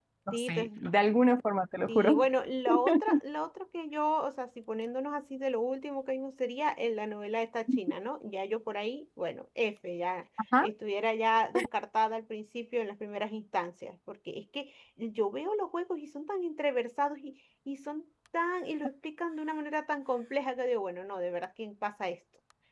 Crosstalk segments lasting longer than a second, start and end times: none

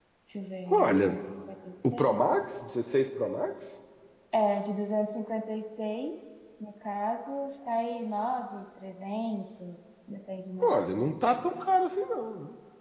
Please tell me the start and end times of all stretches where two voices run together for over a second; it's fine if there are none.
none

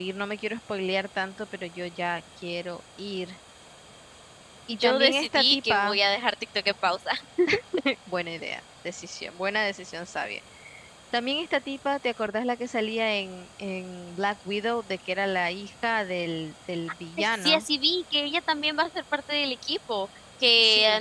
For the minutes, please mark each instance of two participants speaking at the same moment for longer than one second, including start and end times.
4.7-6.0

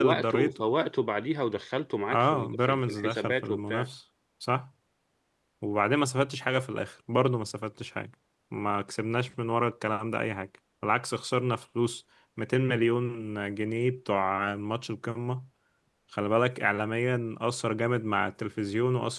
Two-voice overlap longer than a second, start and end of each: 2.1-3.9

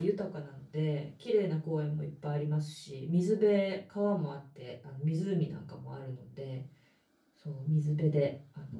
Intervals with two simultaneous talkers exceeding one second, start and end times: none

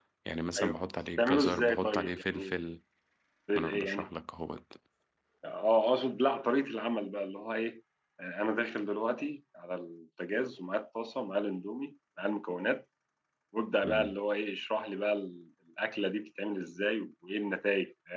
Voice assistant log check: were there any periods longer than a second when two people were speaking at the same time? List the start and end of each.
1.2-2.5

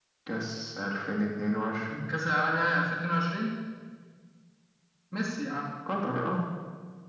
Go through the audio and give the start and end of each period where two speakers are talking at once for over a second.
none

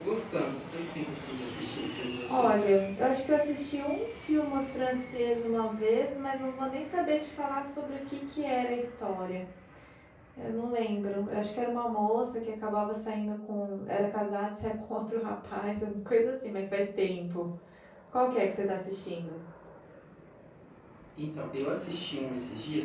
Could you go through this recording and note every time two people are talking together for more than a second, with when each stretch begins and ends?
none

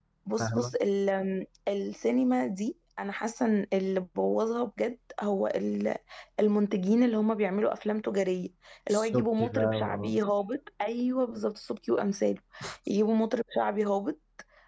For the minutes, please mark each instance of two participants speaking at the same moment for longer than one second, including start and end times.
8.9-10.2

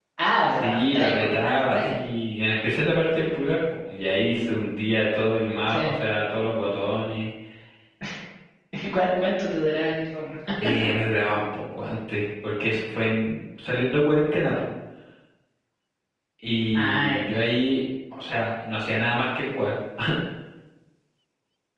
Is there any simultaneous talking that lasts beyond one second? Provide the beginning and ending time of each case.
0.5-2.0

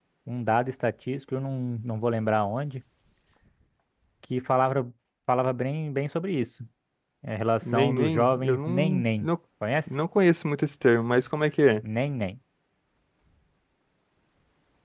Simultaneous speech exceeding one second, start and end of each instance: 7.6-9.3

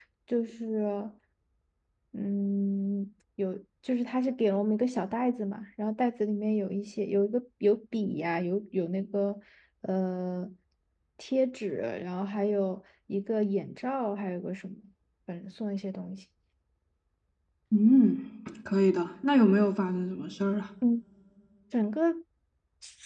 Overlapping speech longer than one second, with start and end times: none

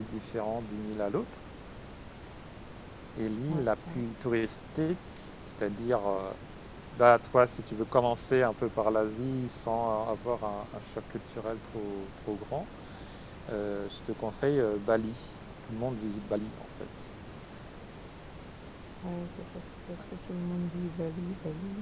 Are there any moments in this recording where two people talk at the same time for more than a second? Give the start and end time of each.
none

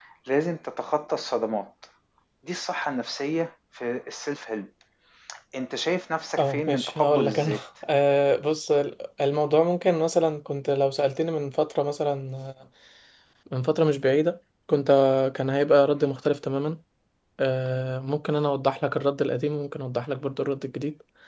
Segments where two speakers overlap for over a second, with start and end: 6.4-7.6

